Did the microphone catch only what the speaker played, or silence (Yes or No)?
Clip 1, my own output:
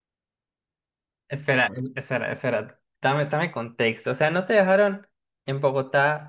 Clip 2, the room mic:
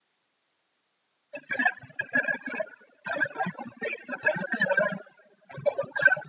Yes